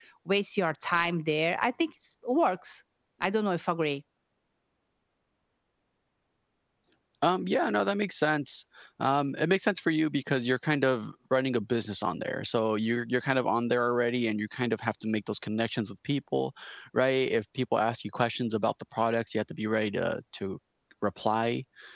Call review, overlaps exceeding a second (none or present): none